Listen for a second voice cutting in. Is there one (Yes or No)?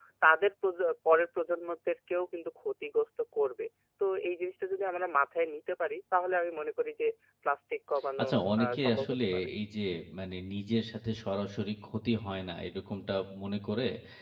Yes